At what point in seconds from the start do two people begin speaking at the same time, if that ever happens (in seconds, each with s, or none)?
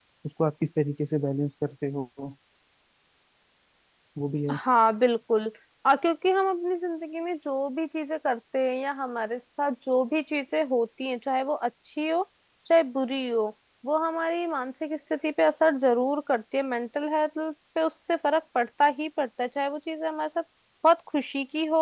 none